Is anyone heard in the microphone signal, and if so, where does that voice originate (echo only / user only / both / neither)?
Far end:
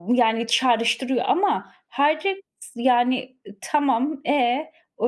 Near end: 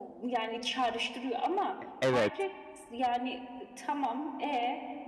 both